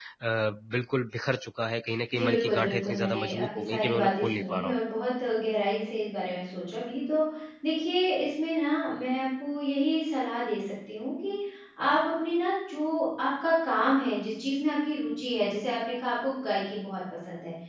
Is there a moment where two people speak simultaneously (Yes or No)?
Yes